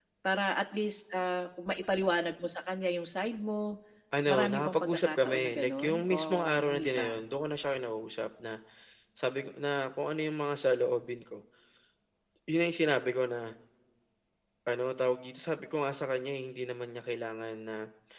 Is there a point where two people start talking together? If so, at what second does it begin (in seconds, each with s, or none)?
4.3 s